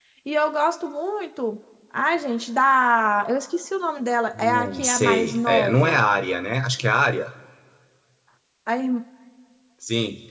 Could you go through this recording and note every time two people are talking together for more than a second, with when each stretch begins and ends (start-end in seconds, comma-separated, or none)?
4.4-6.0